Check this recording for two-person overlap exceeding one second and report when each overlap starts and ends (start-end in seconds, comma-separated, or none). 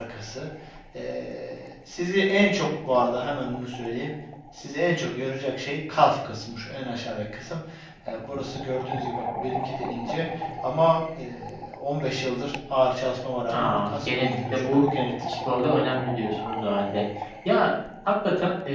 13.5-14.8